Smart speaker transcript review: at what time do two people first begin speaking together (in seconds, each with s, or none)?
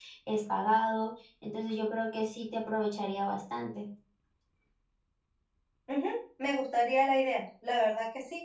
none